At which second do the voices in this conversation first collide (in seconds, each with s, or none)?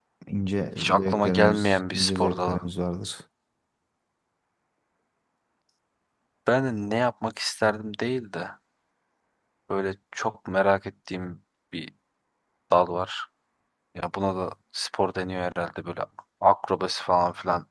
0.8 s